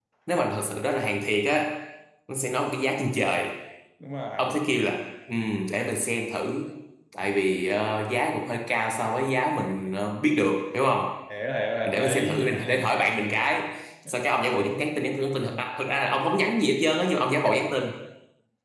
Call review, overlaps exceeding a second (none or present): present